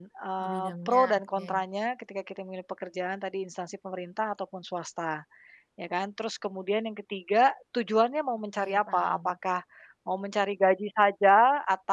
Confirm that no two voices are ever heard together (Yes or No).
No